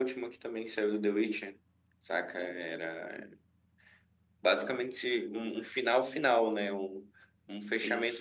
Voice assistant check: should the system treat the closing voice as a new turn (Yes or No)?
No